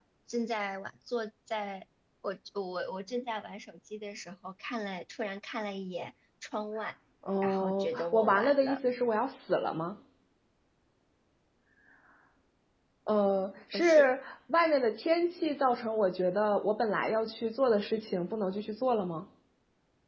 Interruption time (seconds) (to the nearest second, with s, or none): 7 s